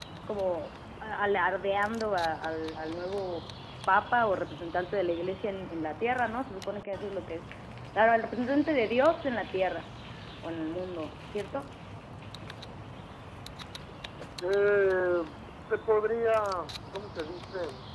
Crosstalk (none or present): none